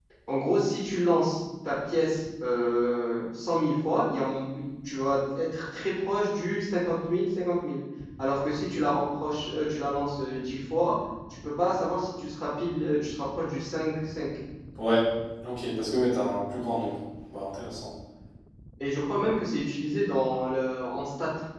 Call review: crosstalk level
none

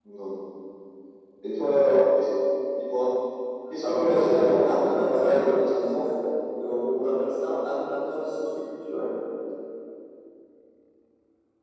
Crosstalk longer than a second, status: present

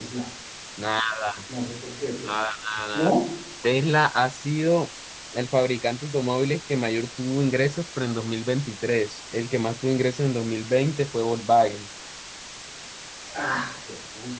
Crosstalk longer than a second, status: none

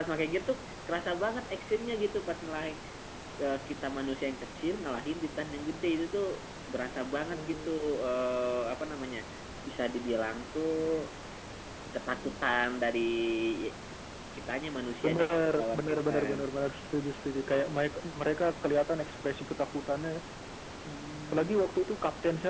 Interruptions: present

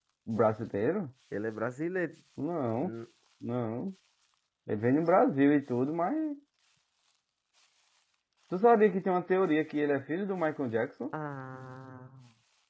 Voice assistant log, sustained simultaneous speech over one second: none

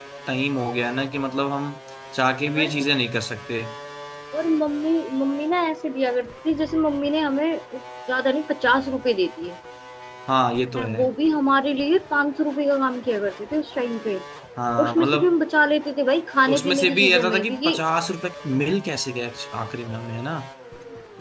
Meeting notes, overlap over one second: present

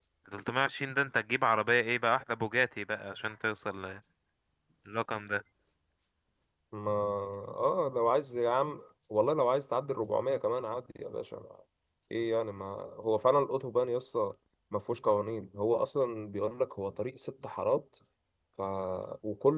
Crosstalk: none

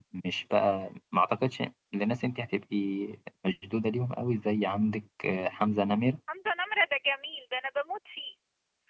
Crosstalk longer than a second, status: none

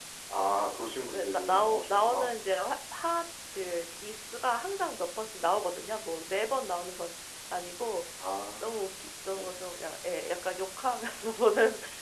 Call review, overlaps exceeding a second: present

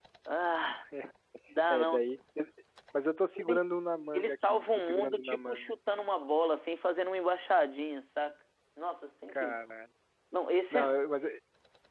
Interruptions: present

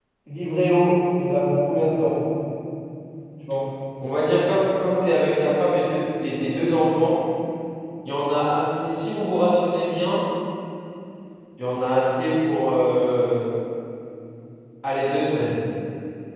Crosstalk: none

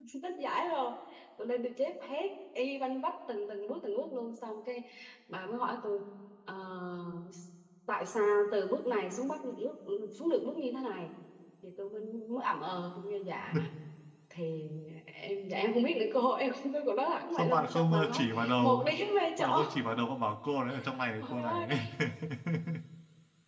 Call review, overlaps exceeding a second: present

